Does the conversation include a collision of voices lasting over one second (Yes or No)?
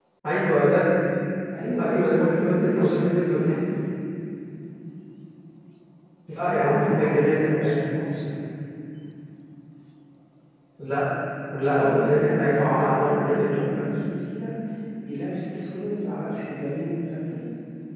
Yes